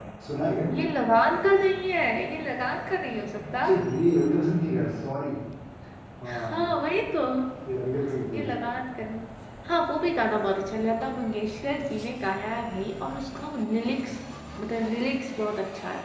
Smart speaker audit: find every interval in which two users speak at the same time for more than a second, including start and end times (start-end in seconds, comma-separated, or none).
none